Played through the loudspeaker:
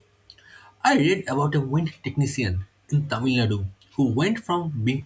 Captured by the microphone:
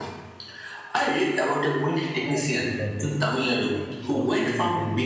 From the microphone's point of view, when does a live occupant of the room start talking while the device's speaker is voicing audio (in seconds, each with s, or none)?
2.2 s